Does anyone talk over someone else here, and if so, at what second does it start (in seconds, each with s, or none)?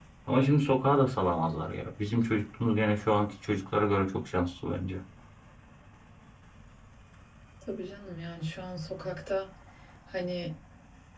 none